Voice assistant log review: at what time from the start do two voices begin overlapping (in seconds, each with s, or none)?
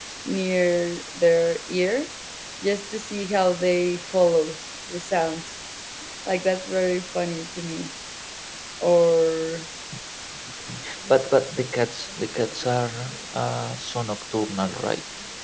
none